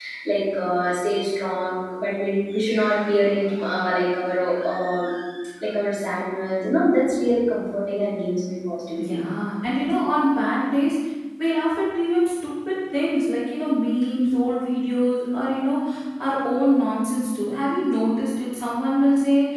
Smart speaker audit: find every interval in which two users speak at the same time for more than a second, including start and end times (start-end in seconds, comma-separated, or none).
none